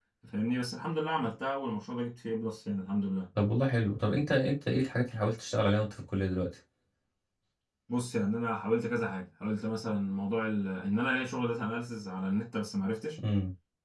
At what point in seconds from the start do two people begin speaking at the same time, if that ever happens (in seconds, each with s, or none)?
none